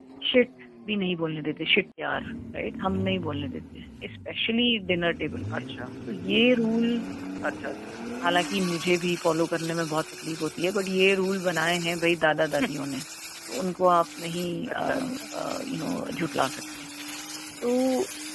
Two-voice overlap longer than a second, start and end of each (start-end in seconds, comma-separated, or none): none